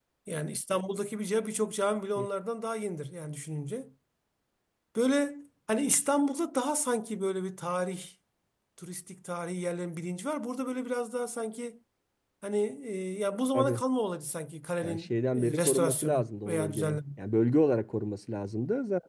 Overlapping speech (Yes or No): Yes